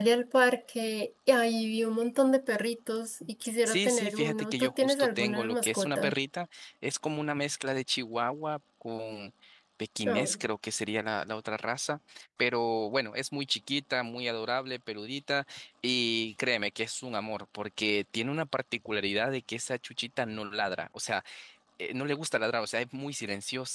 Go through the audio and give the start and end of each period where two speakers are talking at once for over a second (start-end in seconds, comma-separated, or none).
3.6-6.1